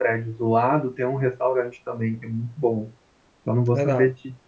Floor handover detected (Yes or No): No